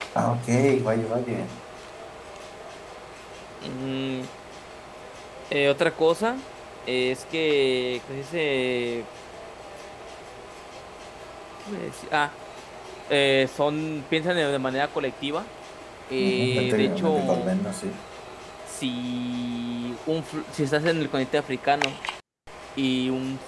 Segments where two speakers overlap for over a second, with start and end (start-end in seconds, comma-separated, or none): 16.2-17.5